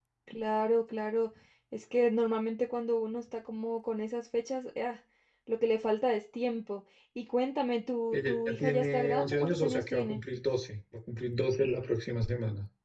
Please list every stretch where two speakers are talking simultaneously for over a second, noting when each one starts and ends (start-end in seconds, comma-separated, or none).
8.1-10.2